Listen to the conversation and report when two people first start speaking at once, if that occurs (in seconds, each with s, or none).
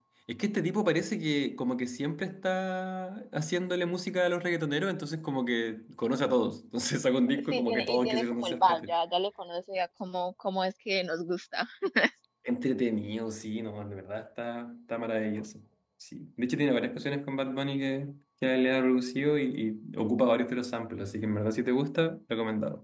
7.5 s